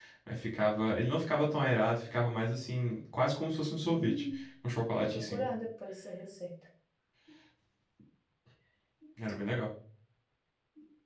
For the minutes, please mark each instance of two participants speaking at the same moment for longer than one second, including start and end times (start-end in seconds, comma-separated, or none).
none